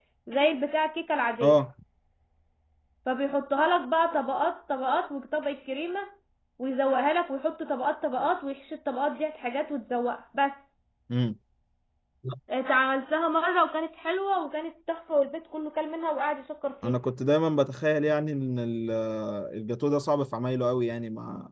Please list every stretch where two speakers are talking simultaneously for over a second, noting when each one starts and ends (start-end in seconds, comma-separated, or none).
none